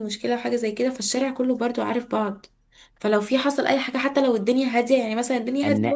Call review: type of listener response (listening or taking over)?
listening